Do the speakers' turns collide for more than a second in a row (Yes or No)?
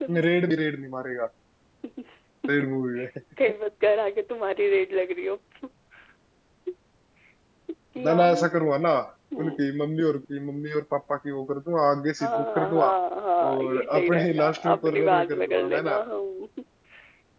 Yes